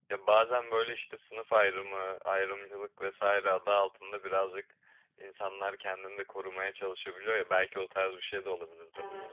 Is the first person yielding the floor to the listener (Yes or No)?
Yes